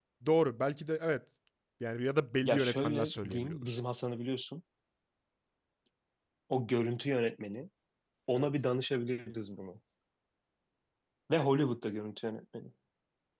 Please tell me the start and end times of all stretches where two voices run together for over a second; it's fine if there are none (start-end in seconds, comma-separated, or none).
2.4-3.8